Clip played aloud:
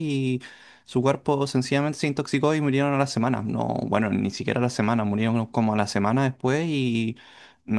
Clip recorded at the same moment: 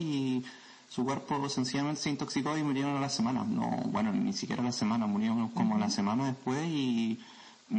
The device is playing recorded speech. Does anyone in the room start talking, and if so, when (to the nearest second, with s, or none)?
6 s